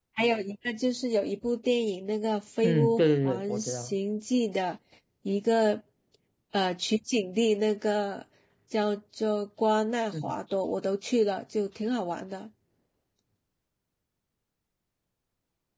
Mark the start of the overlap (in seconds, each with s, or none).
2.6 s